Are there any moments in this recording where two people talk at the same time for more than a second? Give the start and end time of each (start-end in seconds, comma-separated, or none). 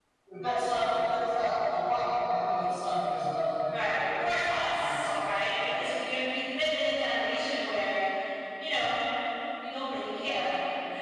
3.7-5.8